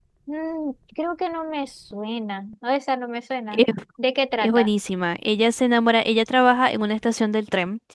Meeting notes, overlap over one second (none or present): none